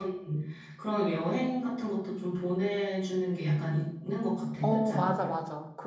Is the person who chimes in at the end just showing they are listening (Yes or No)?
No